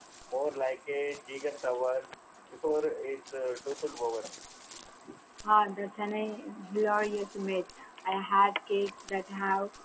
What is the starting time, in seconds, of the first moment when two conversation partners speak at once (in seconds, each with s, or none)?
none